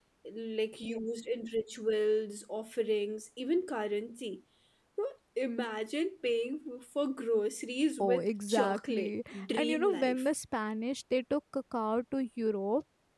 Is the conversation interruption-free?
No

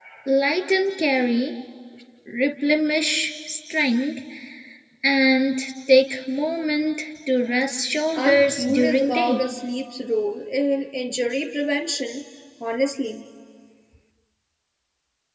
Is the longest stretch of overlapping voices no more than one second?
No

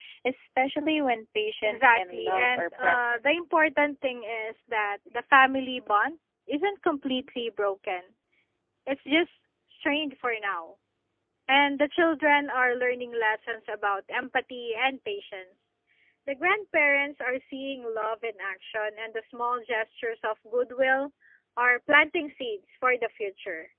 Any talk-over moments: Yes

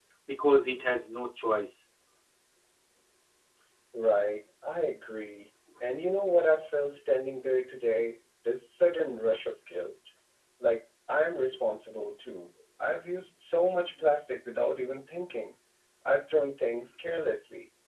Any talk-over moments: No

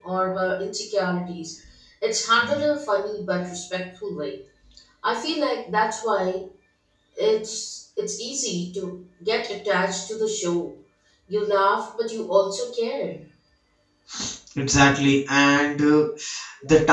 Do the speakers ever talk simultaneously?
No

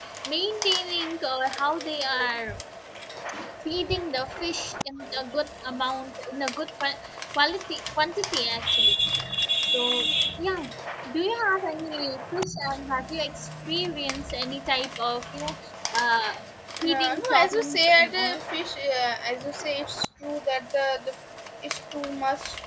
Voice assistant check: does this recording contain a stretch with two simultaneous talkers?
Yes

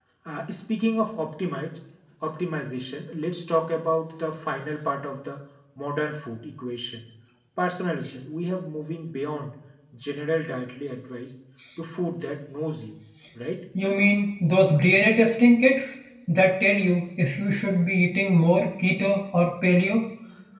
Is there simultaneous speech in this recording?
No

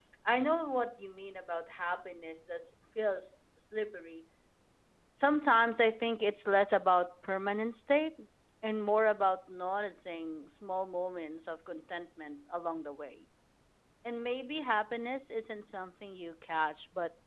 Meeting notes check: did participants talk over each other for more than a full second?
No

